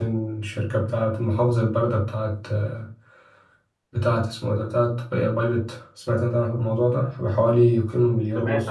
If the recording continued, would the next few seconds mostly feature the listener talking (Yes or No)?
Yes